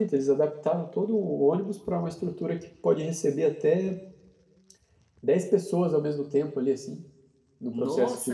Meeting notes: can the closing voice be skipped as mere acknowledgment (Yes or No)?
No